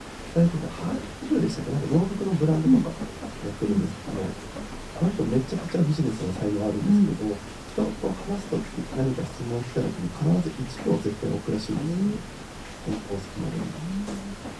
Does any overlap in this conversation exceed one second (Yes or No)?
No